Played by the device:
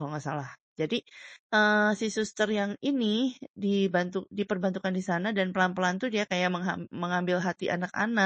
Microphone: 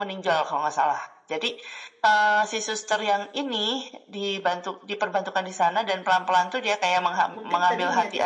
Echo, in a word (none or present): present